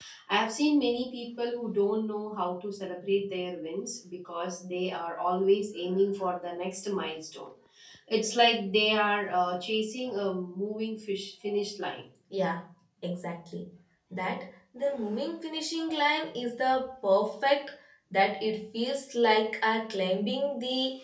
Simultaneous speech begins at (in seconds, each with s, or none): none